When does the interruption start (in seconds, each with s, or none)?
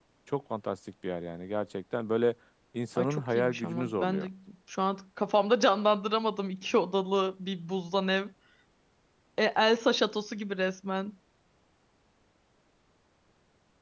3.0 s